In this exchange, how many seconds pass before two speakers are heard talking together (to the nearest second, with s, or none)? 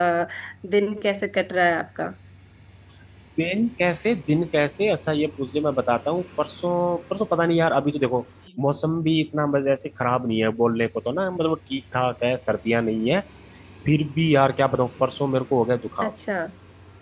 none